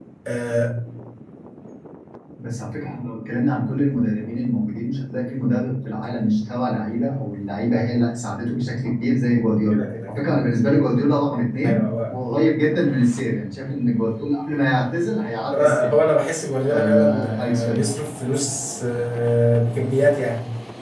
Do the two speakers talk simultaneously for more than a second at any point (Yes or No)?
Yes